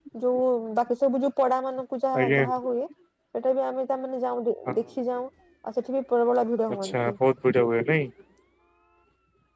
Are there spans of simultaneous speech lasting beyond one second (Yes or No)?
No